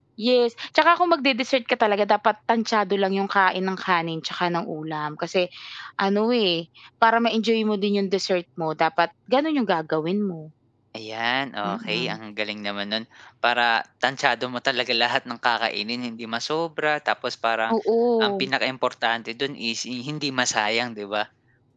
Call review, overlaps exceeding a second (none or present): none